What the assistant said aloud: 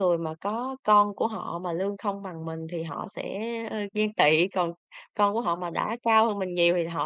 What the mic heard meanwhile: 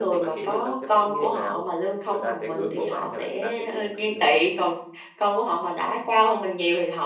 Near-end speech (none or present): present